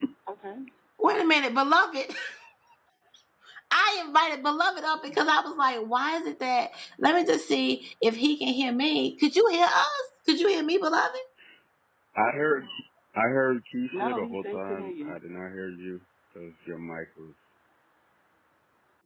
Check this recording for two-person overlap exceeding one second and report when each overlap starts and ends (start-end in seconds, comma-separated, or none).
13.9-15.2